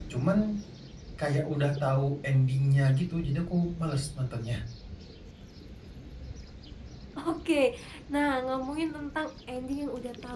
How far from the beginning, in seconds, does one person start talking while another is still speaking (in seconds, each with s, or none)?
none